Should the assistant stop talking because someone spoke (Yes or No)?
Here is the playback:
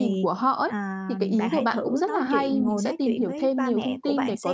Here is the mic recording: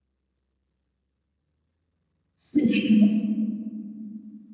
Yes